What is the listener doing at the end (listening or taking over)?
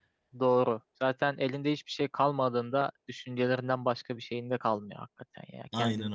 listening